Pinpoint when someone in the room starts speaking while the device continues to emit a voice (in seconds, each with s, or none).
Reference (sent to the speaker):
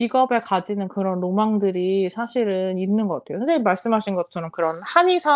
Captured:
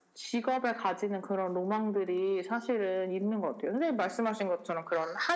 none